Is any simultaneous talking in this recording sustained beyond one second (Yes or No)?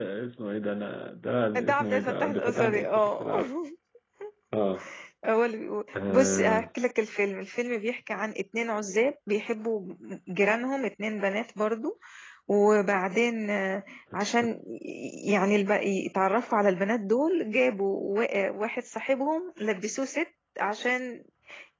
Yes